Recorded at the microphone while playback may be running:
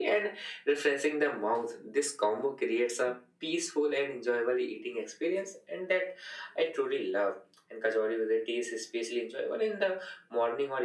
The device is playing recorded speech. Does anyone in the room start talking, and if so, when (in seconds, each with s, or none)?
none